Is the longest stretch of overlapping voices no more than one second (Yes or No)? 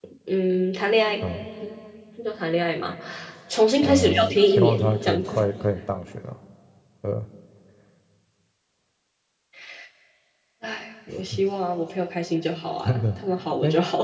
No